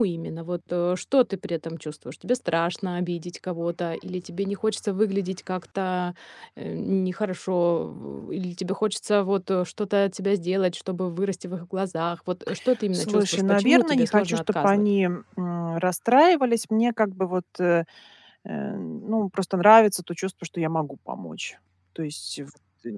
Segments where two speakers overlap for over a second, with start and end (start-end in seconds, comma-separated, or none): 12.9-14.8